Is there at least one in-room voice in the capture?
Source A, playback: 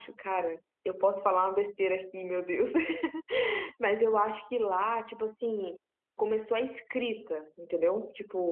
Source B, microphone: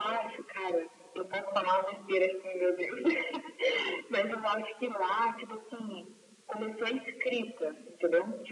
No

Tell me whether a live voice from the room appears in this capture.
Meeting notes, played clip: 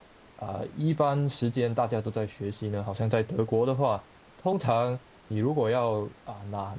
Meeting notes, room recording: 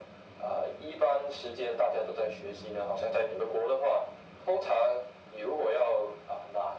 No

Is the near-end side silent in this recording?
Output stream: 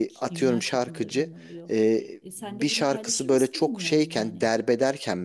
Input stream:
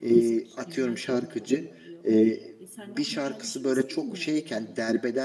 Yes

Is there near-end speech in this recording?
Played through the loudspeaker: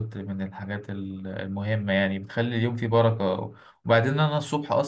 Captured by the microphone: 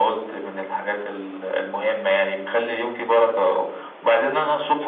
No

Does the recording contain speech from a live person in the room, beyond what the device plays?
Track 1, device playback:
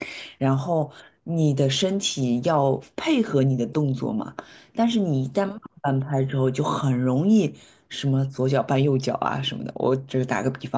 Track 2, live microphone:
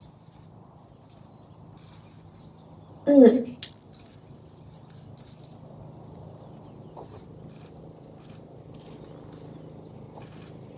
Yes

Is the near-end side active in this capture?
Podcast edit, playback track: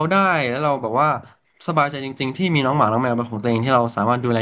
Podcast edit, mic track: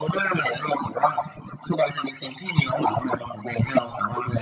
No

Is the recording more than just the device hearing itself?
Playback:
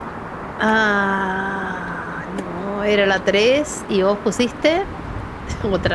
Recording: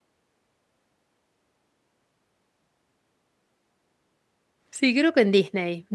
Yes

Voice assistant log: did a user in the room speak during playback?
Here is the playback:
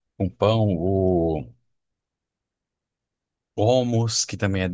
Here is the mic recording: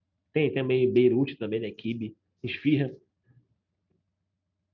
Yes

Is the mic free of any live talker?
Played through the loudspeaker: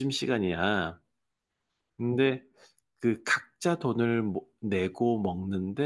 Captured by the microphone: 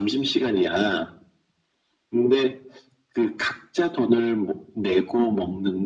Yes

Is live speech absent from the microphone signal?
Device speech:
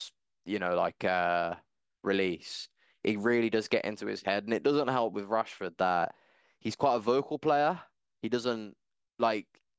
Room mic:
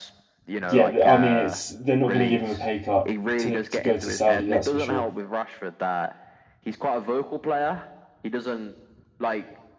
No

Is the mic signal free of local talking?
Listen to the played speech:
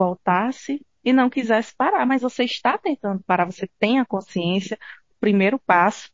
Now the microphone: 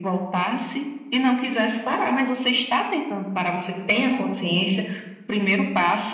Yes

